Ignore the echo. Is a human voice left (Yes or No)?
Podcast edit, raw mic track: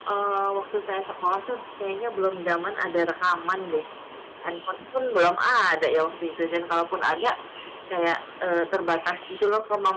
No